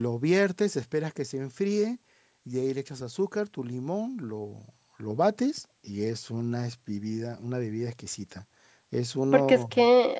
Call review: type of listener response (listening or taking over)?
taking over